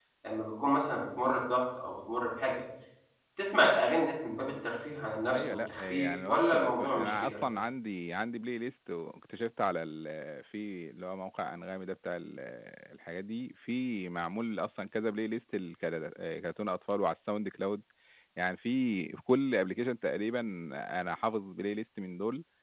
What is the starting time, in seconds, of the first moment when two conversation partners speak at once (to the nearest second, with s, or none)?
5 s